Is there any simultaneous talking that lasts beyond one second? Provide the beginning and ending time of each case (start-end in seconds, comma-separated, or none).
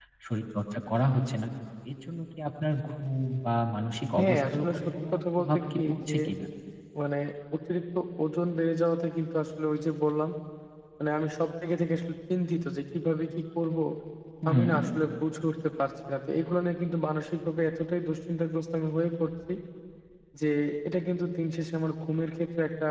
4.2-6.2